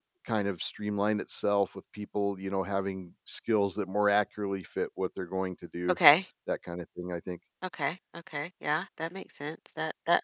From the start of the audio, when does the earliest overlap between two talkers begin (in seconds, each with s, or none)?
none